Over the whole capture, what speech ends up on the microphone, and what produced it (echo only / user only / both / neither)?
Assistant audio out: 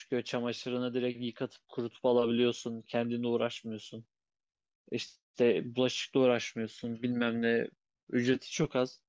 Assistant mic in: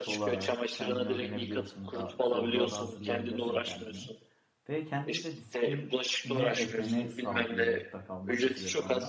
both